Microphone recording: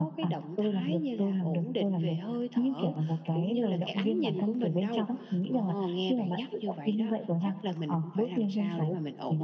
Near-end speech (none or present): none